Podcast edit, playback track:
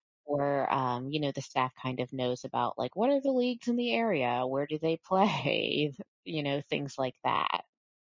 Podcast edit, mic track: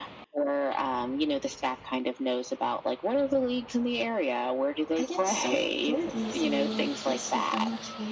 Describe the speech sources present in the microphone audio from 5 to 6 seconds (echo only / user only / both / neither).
both